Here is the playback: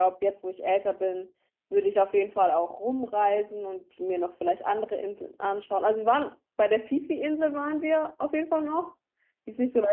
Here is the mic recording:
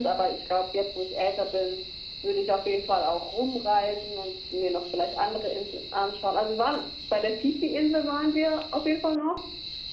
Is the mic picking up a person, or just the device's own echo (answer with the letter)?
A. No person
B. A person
A